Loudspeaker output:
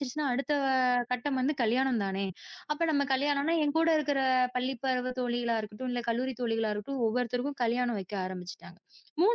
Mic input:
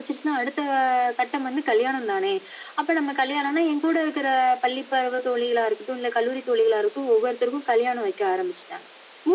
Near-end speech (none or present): none